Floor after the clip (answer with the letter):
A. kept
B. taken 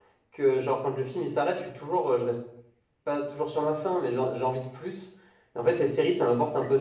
A